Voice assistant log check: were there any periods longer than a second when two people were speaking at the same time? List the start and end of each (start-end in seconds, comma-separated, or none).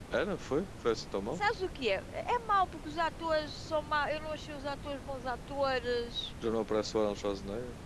none